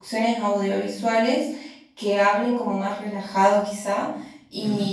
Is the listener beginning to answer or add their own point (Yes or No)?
No